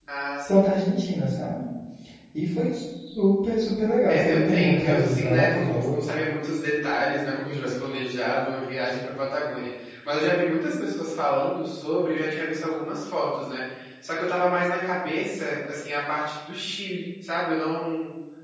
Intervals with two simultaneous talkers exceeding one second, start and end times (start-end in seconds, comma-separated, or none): 4.1-6.0